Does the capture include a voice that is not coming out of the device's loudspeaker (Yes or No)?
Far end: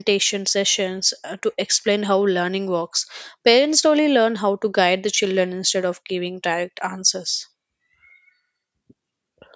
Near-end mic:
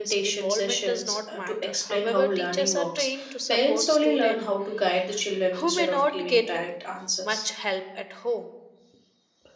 Yes